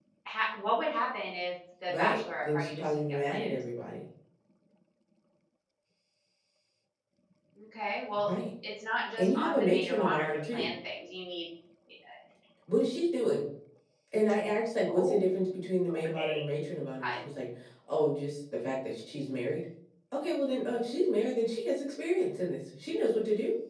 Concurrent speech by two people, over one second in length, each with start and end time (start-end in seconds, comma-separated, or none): 1.9-3.5, 9.2-10.7